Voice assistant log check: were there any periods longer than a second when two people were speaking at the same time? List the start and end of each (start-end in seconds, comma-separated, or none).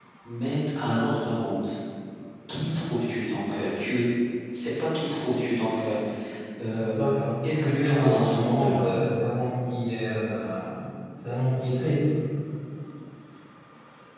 7.4-8.9